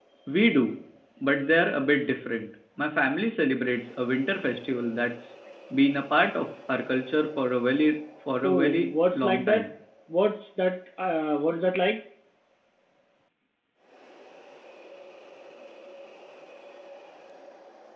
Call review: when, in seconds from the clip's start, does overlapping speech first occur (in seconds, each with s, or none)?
8.4 s